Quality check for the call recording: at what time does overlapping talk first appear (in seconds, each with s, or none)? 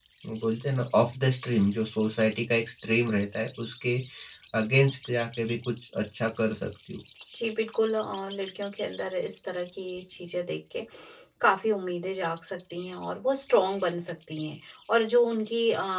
none